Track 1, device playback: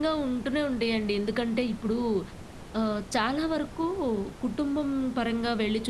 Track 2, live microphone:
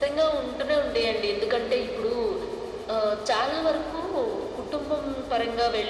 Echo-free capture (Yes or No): No